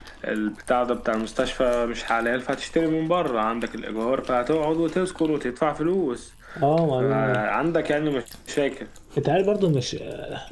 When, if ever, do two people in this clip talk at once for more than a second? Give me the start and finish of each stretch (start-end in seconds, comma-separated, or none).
none